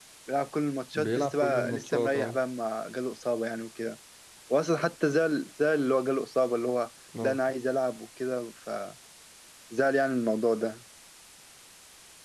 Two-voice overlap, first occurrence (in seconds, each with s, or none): 0.9 s